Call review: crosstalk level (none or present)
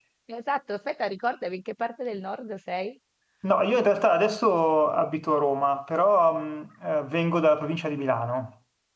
none